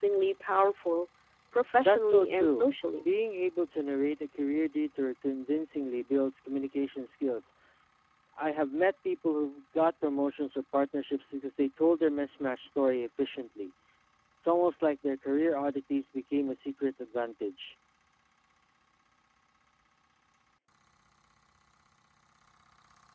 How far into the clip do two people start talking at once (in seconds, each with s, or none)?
1.8 s